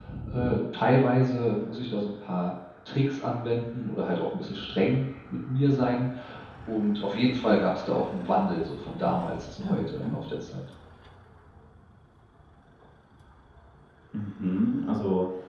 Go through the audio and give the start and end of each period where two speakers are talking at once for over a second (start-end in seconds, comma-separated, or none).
none